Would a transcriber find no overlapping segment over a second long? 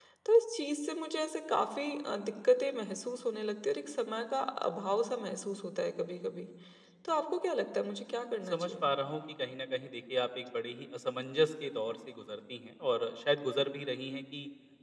Yes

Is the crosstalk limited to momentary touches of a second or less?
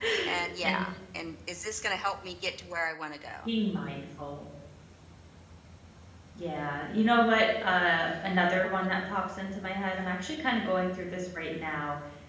Yes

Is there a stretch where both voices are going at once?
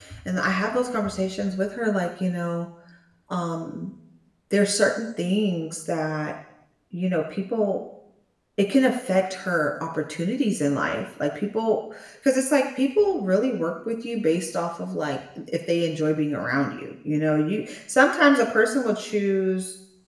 No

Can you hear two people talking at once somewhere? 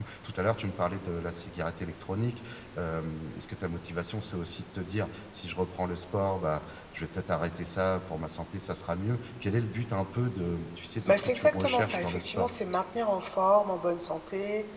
Yes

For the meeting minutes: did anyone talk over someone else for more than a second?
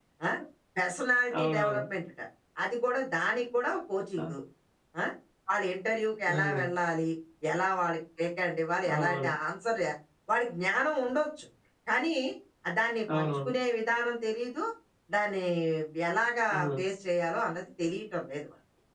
No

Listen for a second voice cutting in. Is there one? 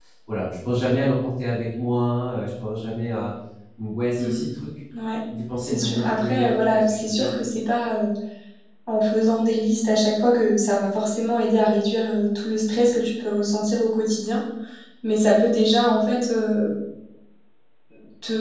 Yes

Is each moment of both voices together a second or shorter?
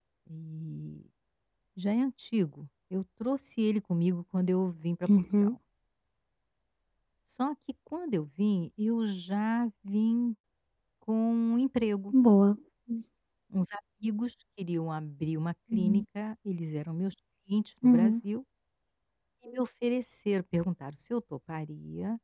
Yes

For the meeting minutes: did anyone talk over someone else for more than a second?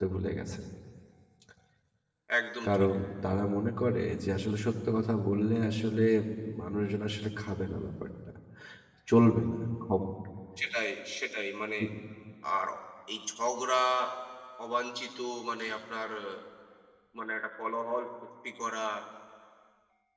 No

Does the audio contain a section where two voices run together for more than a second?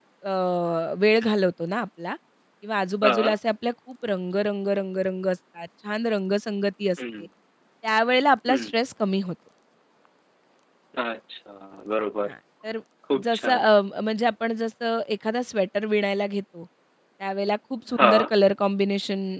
No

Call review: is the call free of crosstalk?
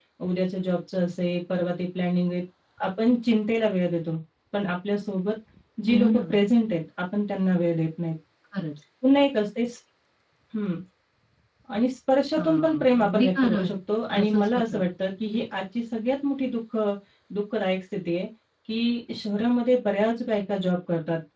No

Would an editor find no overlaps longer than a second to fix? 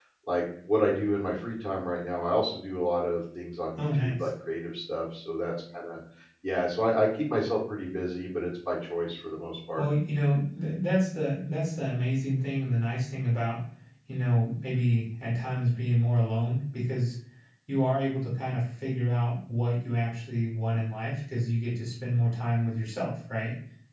Yes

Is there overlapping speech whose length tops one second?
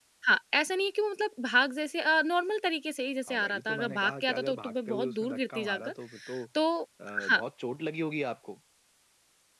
Yes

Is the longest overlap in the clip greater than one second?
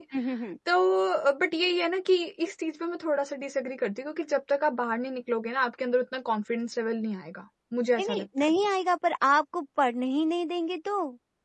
No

